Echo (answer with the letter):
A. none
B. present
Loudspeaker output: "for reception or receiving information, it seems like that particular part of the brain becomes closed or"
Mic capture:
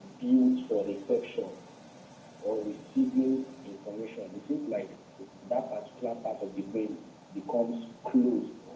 B